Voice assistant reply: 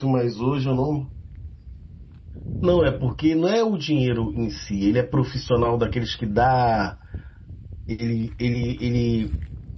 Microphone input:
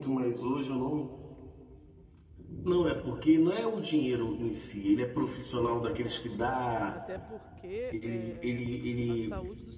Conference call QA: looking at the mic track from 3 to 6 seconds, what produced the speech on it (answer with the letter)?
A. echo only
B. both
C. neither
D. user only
B